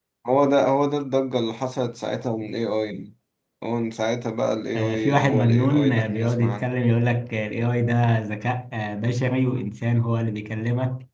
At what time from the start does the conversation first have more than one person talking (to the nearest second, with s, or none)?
5 s